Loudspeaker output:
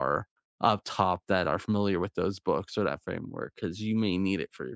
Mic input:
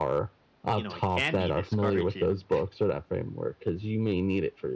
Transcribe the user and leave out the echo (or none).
you know it can be discouraging